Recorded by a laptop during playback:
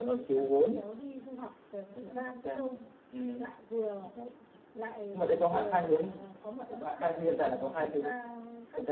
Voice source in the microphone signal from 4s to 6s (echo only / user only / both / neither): echo only